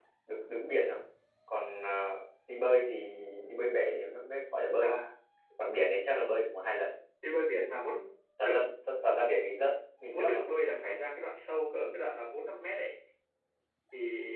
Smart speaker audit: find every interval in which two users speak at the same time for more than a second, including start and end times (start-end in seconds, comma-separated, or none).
none